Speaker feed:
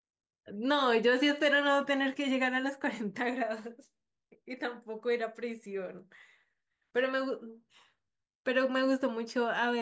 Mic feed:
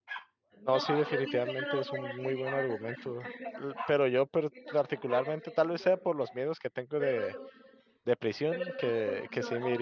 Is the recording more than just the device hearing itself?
Yes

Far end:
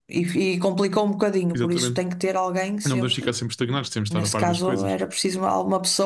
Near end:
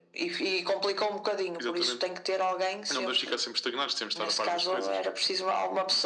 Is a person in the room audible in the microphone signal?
No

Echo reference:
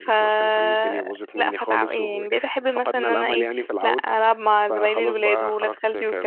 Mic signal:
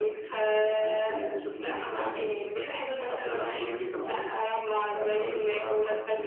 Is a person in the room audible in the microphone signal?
No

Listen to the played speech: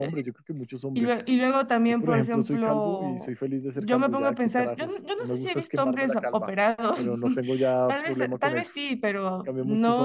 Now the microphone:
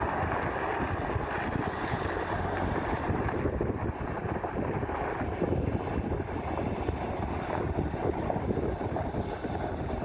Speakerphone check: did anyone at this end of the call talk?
No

